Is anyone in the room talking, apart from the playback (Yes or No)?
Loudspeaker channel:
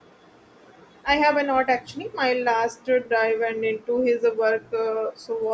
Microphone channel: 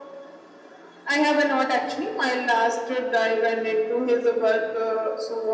No